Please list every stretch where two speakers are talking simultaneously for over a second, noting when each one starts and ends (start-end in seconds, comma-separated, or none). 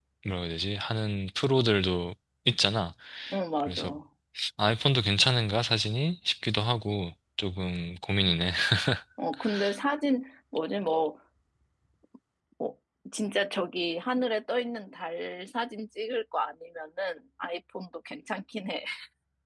none